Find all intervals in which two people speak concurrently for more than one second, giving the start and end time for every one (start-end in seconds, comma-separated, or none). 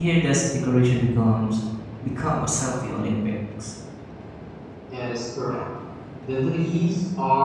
none